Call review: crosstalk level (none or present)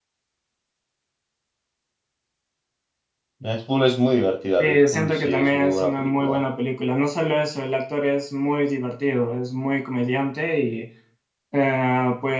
present